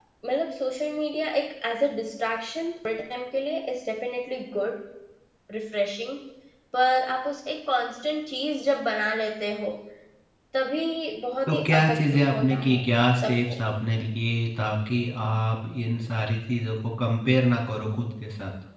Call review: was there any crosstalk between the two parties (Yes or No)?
Yes